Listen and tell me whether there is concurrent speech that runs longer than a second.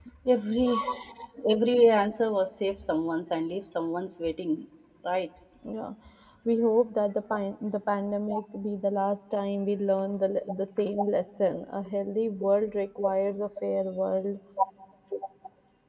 No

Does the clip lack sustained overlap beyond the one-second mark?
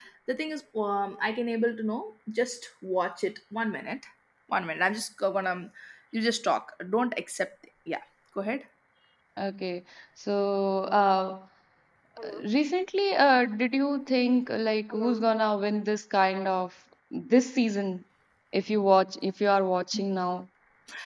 Yes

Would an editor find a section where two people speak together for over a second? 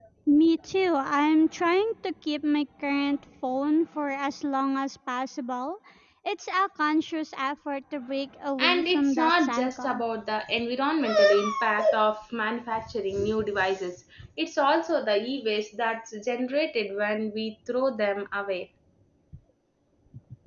Yes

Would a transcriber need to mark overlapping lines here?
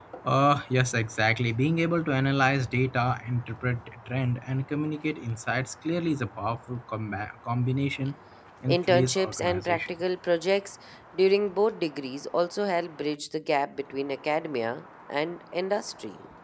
Yes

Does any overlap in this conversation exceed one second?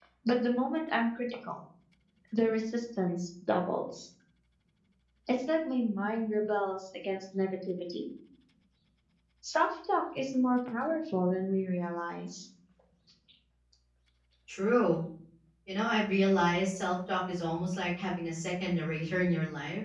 No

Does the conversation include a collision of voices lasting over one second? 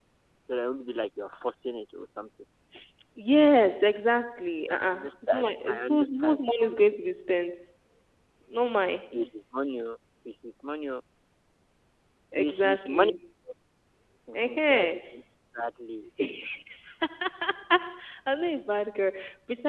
Yes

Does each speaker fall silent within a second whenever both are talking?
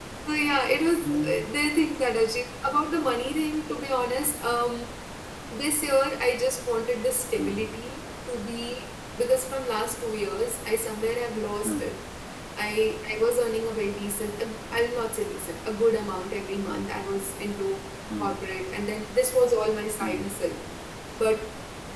Yes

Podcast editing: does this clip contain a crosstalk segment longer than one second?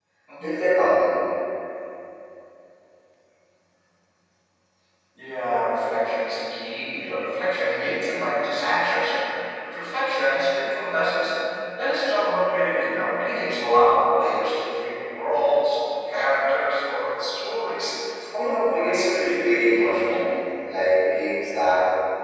Yes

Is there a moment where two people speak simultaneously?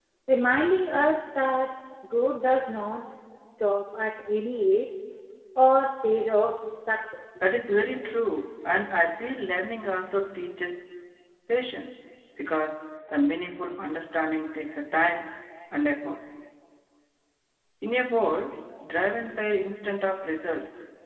No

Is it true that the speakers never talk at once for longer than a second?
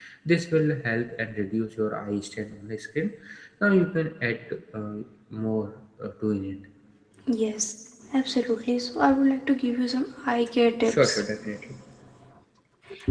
Yes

